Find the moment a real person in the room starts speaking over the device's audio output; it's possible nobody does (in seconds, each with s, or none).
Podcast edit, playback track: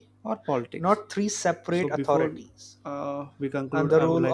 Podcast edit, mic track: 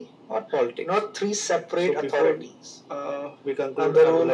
none